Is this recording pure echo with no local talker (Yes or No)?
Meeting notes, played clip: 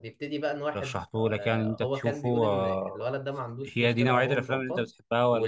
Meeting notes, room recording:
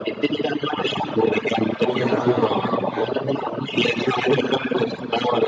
No